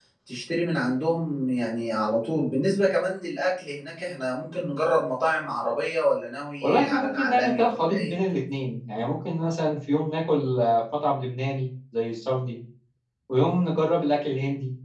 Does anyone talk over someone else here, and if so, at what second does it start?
6.6 s

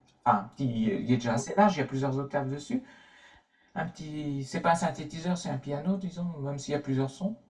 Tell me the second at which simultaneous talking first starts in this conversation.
none

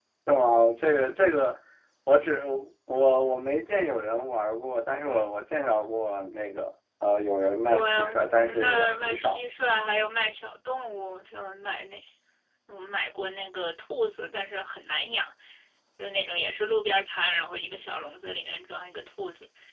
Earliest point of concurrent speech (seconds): 7.7 s

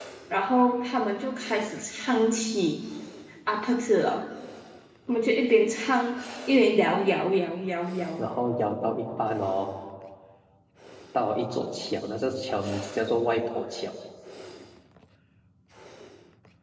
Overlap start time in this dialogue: none

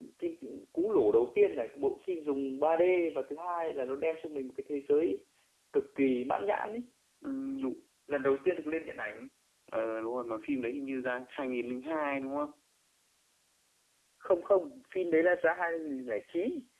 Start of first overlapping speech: none

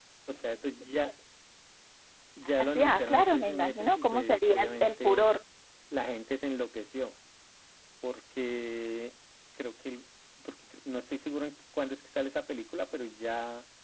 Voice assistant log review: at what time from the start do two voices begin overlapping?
2.6 s

